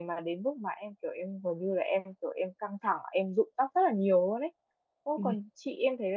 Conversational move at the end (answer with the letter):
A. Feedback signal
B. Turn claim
A